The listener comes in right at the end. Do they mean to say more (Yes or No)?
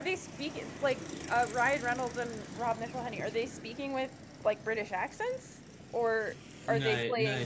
Yes